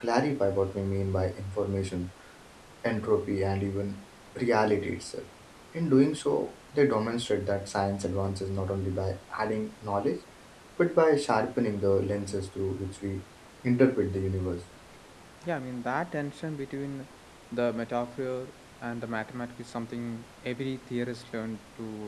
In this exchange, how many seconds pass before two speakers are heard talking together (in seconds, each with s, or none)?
none